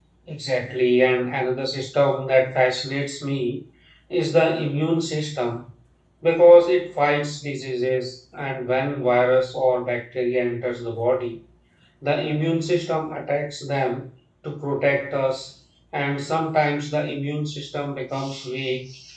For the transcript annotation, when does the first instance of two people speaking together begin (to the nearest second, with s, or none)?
none